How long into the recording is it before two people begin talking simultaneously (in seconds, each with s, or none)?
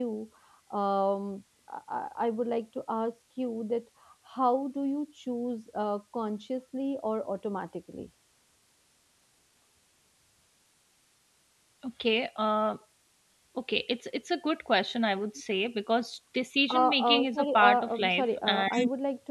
16.7 s